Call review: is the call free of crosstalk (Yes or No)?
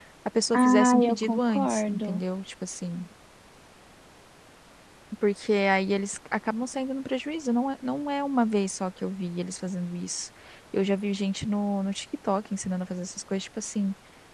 No